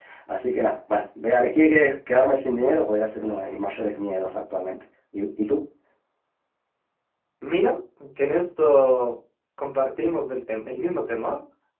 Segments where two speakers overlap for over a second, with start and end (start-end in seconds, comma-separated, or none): none